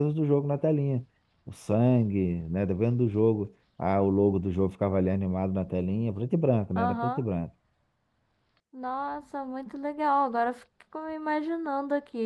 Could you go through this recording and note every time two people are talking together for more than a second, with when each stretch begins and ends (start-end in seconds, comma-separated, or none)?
none